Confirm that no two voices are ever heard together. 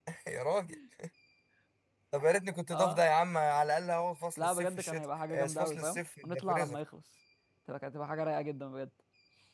No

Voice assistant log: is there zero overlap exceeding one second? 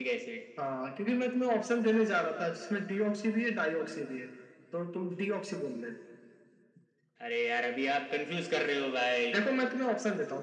Yes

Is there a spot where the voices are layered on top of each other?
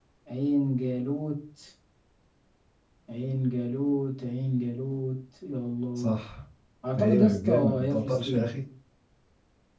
Yes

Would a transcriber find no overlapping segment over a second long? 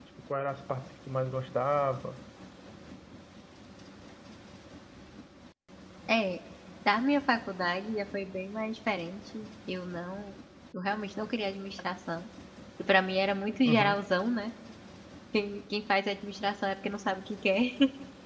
Yes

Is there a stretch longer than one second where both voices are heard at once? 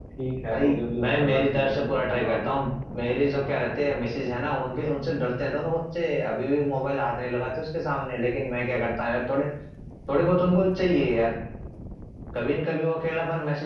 Yes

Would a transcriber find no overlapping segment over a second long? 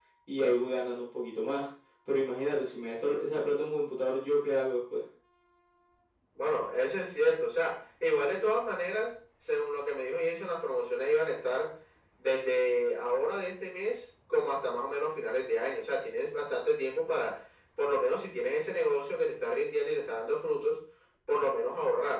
Yes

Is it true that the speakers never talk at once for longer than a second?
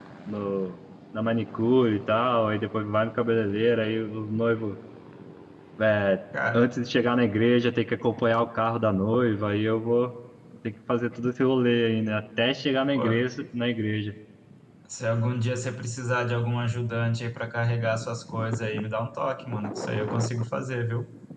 Yes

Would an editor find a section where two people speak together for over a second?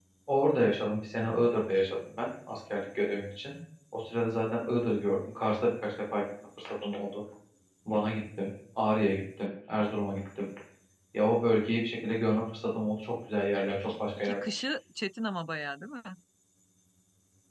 No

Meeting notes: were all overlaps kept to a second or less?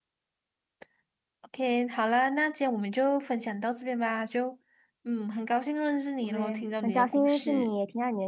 No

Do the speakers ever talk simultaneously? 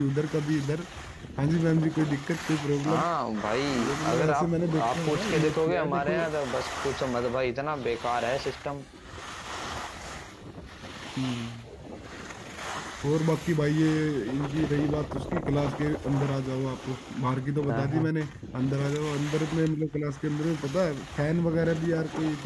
Yes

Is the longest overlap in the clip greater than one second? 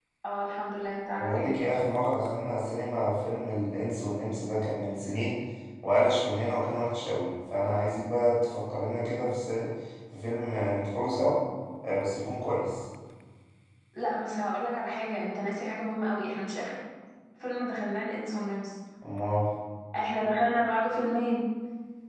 No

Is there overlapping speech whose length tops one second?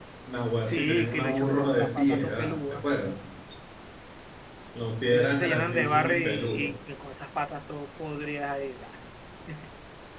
Yes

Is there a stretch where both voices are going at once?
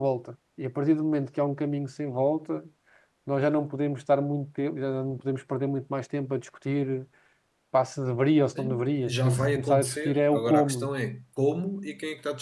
Yes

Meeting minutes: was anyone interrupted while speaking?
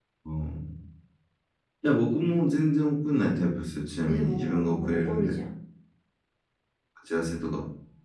Yes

